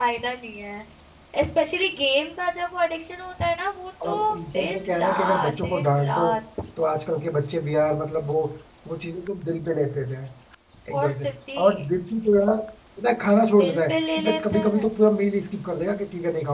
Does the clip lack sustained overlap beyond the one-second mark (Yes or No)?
No